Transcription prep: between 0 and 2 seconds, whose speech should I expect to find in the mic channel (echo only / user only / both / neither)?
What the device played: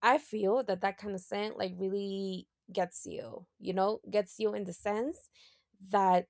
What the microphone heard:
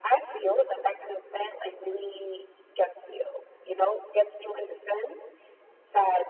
echo only